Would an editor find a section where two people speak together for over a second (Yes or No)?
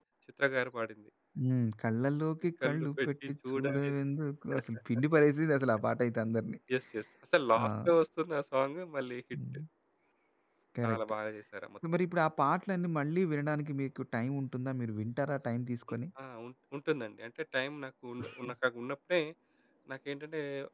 Yes